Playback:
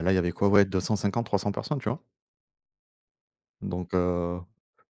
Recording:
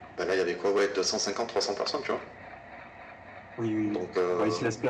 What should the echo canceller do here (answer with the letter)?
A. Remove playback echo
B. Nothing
A